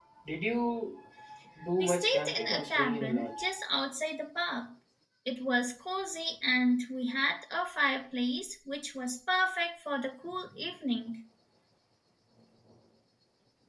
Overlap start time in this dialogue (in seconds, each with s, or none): 1.8 s